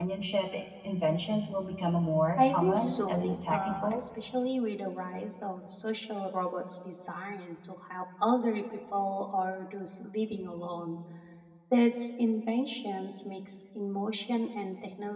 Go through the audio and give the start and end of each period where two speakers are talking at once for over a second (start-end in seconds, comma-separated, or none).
2.4-4.0